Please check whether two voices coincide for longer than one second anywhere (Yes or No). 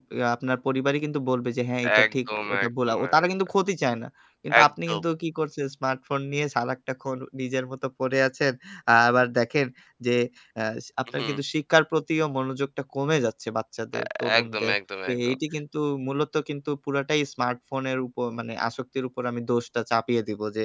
Yes